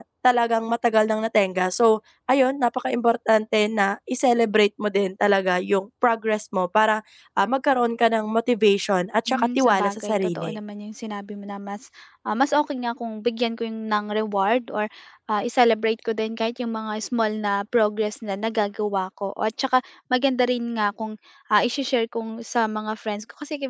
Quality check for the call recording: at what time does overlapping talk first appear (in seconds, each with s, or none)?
9.3 s